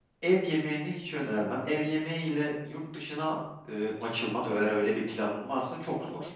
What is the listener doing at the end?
taking over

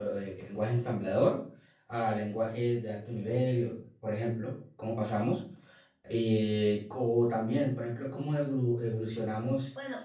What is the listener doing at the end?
listening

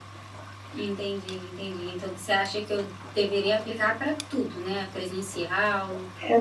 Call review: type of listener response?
taking over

